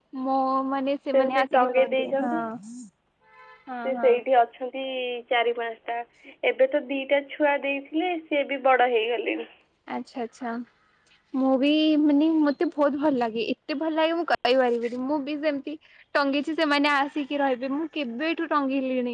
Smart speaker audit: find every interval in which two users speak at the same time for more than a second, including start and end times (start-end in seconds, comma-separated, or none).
1.1-2.4